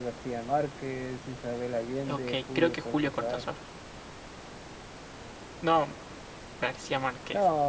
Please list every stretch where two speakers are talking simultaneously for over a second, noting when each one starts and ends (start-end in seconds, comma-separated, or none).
2.1-3.5